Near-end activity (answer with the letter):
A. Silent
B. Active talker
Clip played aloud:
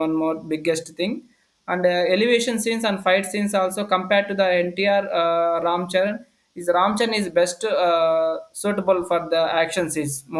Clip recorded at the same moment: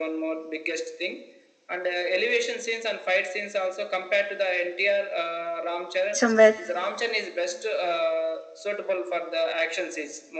B